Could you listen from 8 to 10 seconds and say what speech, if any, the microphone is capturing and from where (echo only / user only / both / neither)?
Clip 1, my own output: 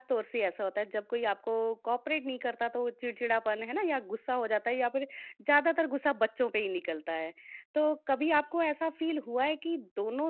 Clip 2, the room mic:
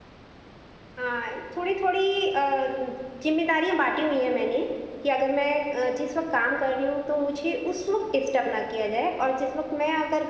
user only